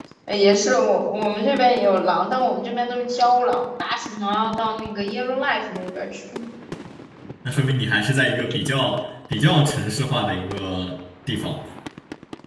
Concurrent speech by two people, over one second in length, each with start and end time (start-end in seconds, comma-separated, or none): none